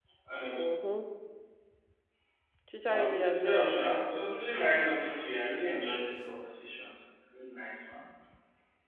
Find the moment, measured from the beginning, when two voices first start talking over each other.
2.9 s

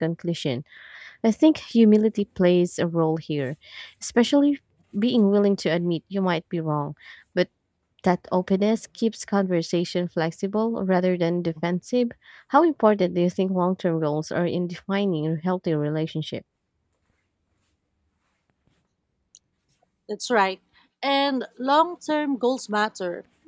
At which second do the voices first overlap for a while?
none

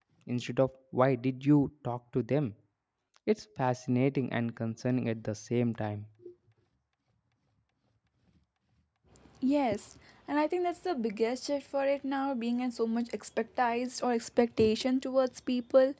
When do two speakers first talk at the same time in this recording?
none

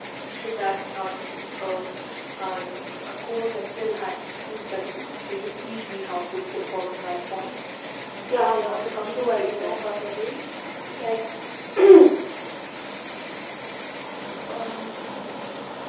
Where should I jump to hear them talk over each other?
8.3 s

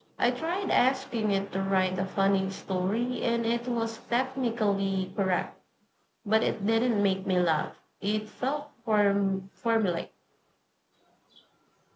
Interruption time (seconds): none

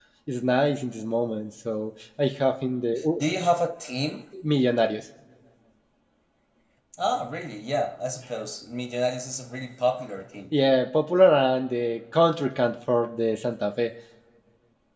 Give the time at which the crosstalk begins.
none

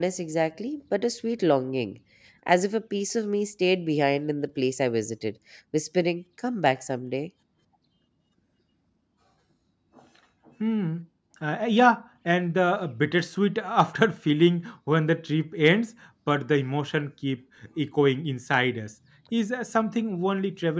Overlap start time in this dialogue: none

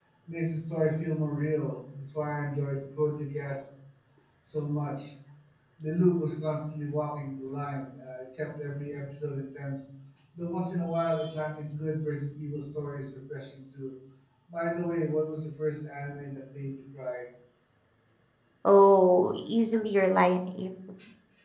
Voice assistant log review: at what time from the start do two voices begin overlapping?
none

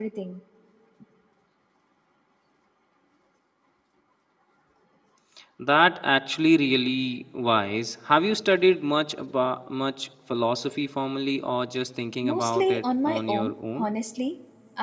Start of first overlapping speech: 12.2 s

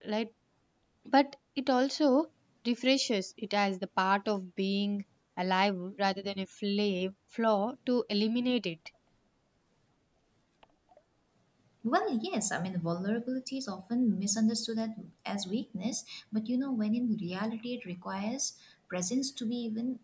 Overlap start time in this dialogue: none

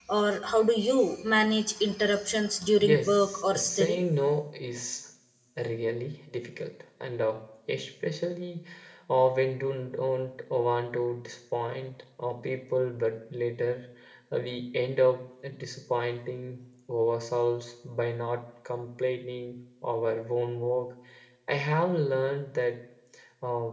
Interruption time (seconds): 2.8 s

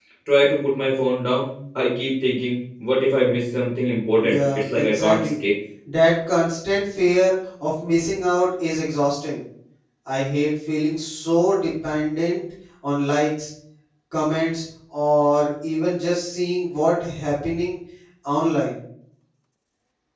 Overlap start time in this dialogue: 4.2 s

